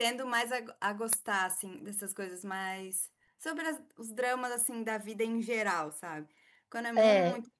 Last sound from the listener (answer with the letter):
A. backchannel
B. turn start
A